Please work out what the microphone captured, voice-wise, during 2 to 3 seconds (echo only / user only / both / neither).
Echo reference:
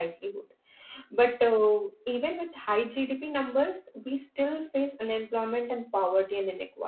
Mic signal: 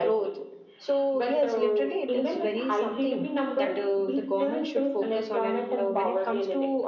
both